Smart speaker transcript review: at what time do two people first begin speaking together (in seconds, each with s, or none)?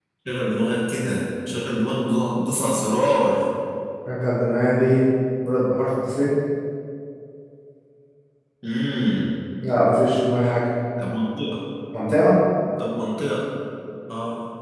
none